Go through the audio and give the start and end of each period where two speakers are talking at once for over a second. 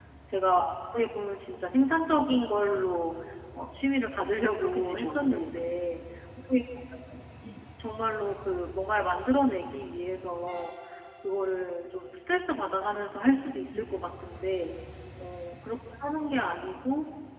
4.4-5.6

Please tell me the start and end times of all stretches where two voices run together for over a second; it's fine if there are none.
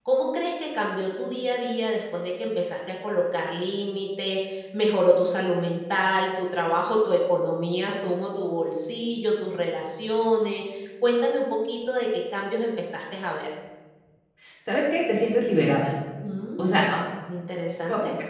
none

